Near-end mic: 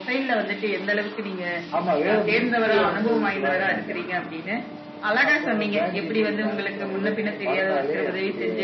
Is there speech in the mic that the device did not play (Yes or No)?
No